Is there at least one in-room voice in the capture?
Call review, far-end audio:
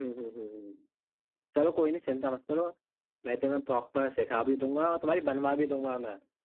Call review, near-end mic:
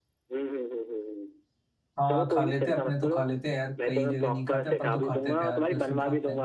Yes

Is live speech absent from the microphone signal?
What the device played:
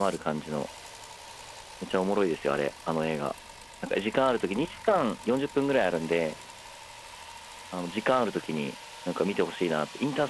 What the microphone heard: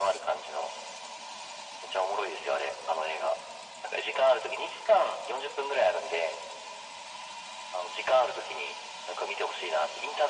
Yes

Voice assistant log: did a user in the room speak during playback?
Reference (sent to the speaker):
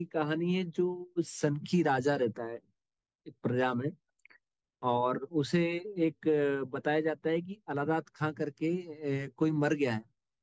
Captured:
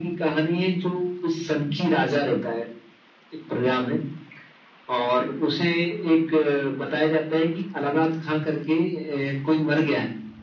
No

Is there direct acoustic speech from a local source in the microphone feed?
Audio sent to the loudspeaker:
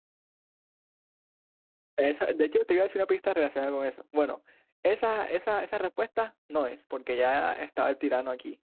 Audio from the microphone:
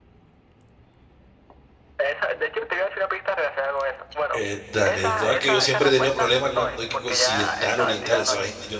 Yes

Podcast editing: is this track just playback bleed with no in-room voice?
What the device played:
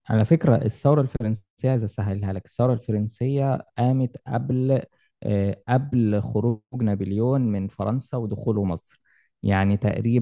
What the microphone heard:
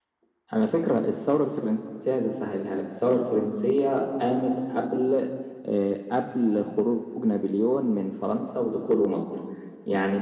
Yes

